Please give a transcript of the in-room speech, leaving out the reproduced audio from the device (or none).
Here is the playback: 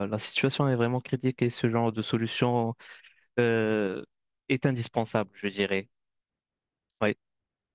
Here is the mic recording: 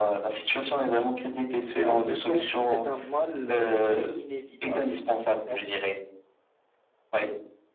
mais en même temps, c'est un mal euh, qui est inévitable. Donc, on